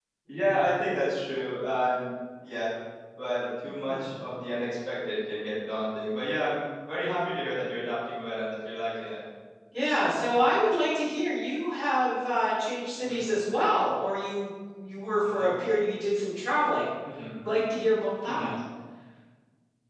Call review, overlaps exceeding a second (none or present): none